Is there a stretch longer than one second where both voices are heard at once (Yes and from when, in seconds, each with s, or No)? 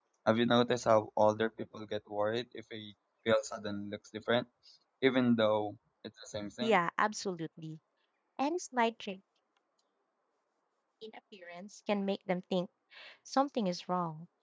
No